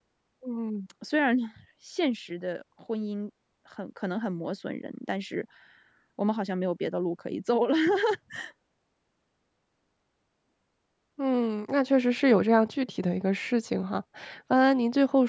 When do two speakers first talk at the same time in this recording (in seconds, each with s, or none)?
none